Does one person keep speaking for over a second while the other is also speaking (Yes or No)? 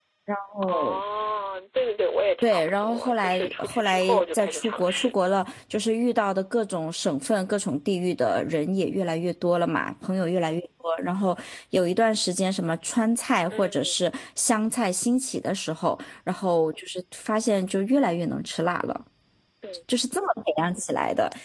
Yes